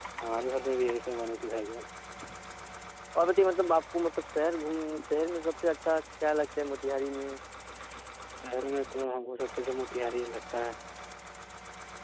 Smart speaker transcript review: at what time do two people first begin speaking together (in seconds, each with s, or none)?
none